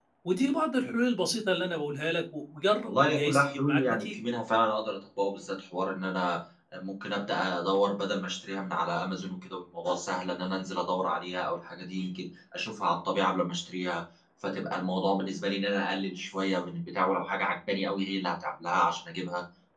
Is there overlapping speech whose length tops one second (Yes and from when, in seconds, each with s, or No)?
Yes, from 2.9 s